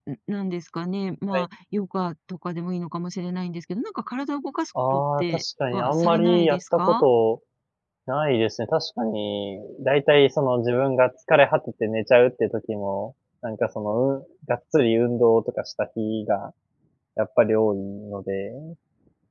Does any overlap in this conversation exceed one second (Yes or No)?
Yes